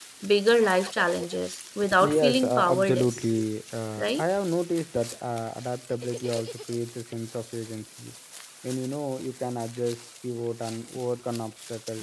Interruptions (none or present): present